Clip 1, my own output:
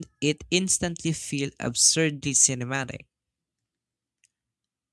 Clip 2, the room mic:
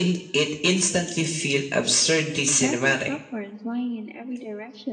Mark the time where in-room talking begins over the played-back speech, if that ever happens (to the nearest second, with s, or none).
2 s